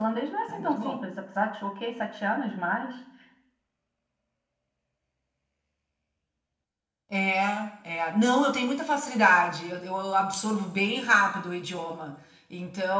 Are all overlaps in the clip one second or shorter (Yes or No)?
Yes